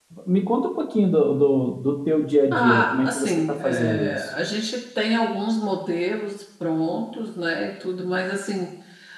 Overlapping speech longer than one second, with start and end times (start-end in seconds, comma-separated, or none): 2.5-4.3